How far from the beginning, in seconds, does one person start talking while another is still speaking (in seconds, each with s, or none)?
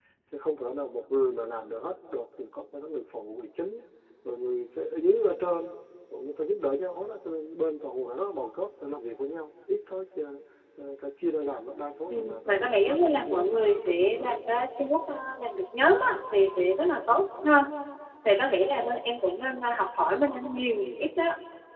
12.1 s